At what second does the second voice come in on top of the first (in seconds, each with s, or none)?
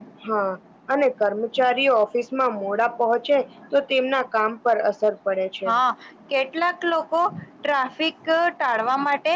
none